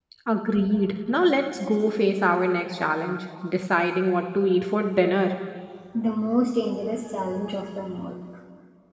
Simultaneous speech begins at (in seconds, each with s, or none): none